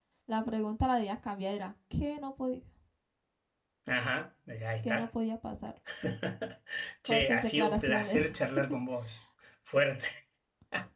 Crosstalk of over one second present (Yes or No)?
Yes